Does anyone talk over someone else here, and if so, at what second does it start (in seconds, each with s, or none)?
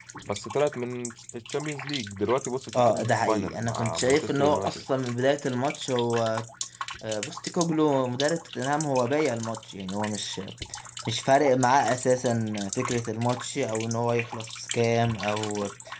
2.7 s